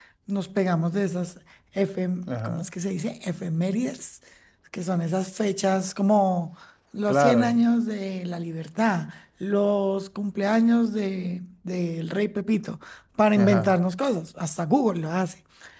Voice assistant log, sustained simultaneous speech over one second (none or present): none